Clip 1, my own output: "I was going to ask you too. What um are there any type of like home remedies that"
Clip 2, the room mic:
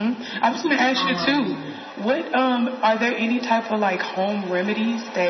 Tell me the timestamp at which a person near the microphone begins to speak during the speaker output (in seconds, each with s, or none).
1.0 s